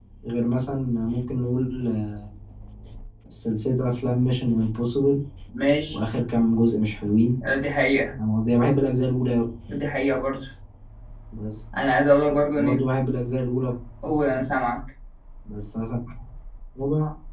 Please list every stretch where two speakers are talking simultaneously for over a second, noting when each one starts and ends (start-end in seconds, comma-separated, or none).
none